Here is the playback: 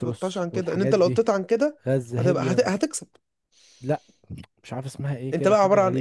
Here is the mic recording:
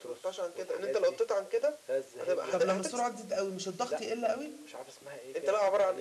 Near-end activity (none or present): present